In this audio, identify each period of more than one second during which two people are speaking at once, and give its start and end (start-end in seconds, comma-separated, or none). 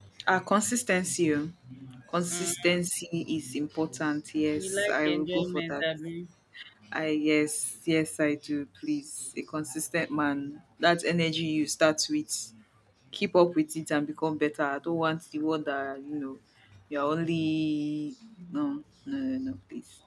4.6-5.8